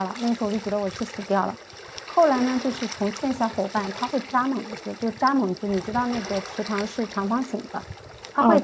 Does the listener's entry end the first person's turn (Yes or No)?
No